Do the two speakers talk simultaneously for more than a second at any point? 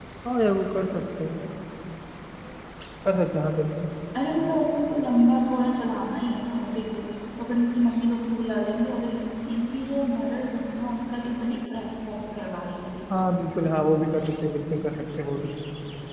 No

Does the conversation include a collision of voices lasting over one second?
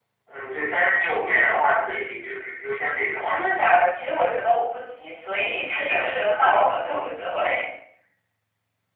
No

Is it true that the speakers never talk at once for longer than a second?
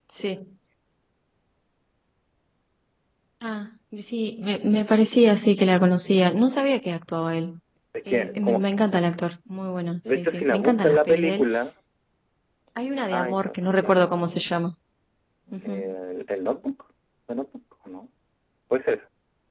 No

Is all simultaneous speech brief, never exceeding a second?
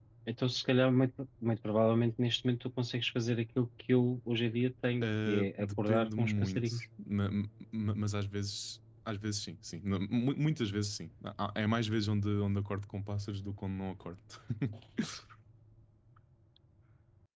No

